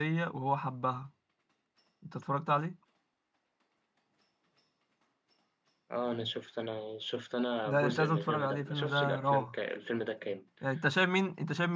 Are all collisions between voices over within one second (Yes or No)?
No